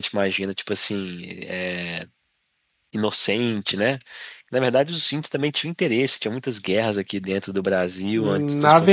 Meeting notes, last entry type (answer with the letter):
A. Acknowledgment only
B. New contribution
B